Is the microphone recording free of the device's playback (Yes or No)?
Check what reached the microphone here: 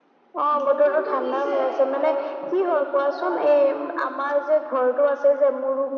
No